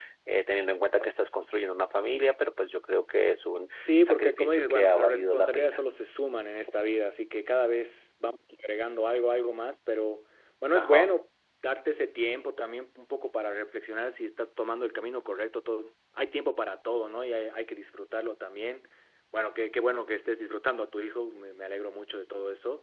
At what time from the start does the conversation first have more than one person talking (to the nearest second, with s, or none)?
4 s